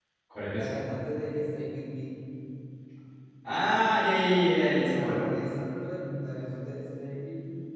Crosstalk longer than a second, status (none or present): none